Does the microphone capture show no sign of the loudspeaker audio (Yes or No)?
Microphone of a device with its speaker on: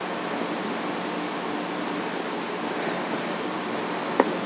Yes